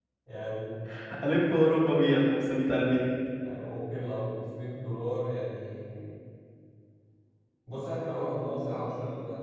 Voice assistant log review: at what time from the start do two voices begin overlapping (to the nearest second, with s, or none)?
none